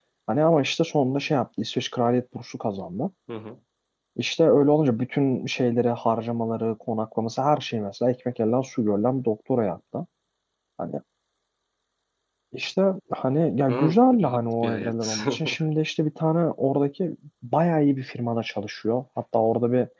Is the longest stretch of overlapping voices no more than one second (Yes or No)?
No